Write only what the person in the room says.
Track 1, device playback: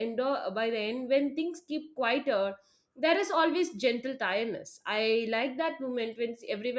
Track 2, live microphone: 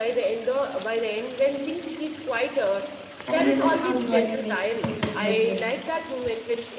I realized how Diwali makes people generous

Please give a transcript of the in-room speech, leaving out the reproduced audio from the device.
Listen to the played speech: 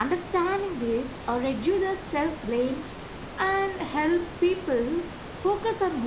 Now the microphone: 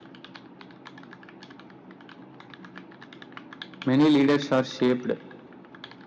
Many leaders are shaped

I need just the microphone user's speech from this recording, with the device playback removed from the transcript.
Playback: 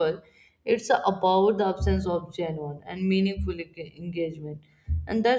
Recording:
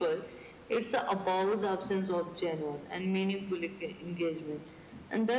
none

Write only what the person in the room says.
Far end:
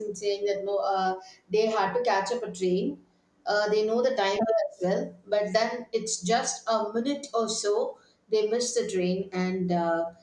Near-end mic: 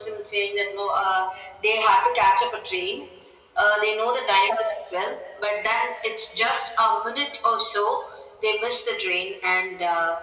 none

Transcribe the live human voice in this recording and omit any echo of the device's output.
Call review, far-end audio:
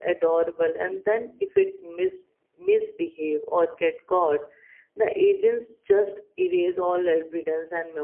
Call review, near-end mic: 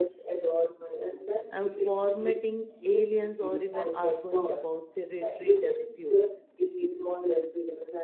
and formatting aliens or even arguing about territory dispute.

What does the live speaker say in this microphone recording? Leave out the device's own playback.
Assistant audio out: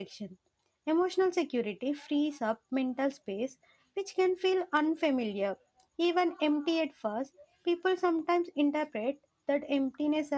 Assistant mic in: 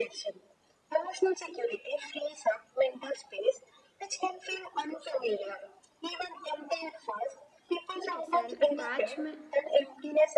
Yes, and attachment.

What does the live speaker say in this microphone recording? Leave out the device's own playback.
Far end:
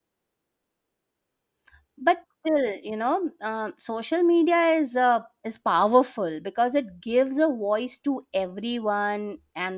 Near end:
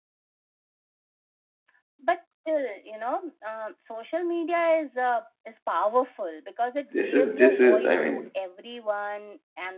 this is this is i mean

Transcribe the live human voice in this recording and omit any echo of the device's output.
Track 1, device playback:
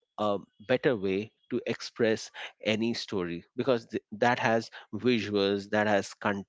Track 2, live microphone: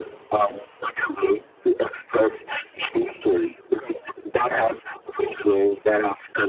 none

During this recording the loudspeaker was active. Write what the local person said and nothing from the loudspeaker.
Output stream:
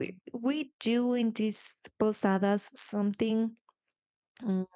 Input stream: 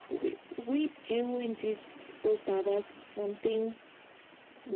none

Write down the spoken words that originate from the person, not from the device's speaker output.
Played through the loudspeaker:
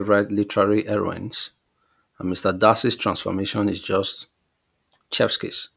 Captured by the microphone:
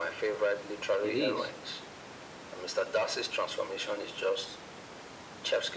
It is,

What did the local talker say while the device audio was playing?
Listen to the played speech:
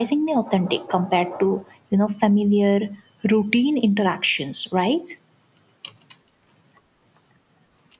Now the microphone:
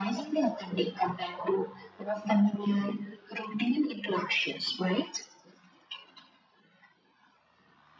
none

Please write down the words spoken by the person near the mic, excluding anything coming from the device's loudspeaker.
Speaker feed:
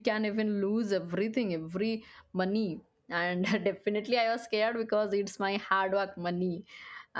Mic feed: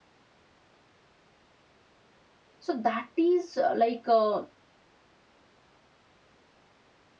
so that is uh, like uh,

